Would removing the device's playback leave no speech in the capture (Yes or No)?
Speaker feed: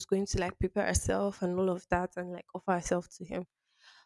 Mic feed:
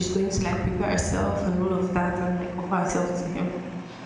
Yes